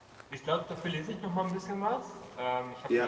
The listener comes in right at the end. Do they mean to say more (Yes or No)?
No